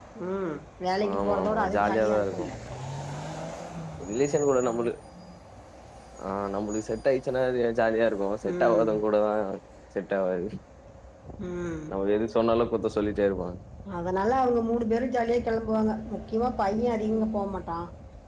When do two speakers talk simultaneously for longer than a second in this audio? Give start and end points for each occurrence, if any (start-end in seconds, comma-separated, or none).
1.1-2.5